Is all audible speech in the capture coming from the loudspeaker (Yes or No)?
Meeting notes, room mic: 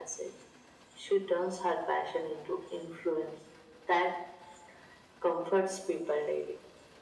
Yes